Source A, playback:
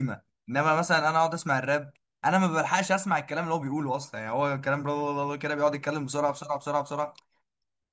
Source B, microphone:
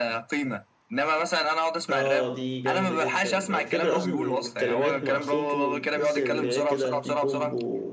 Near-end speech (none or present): present